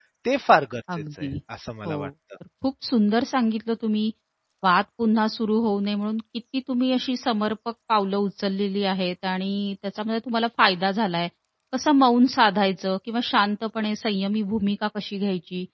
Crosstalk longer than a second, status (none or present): none